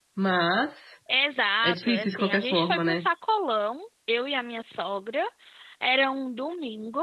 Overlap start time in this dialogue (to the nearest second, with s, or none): 2 s